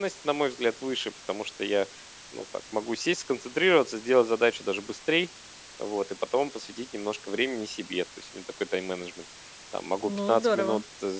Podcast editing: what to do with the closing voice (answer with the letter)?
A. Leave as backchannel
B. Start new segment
A